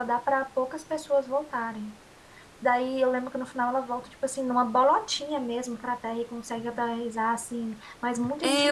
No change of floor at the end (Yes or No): No